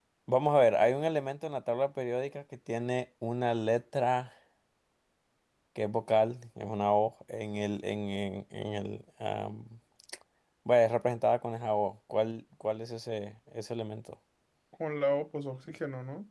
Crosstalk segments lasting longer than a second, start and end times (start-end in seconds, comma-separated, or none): none